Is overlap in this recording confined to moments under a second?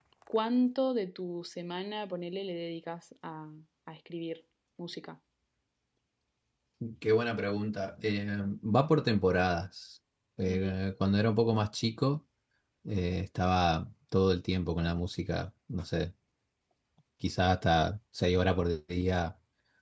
Yes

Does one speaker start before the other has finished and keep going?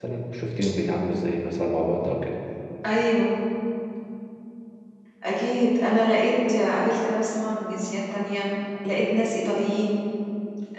No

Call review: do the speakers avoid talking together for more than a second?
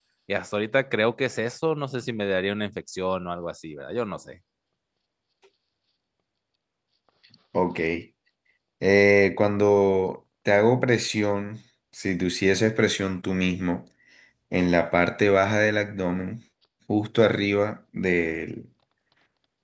Yes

